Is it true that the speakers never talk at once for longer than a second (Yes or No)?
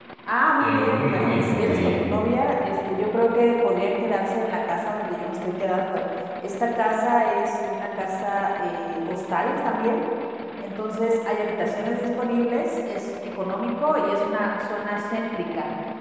No